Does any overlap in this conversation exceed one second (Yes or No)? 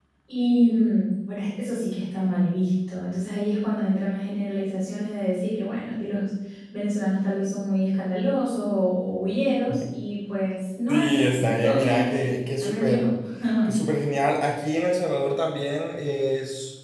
Yes